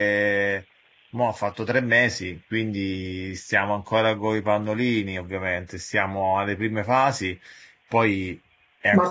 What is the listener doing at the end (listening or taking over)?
taking over